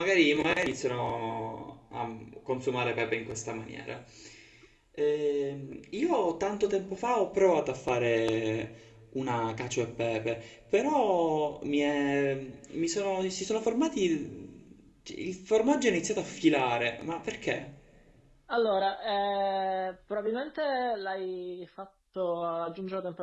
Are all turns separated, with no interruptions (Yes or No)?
Yes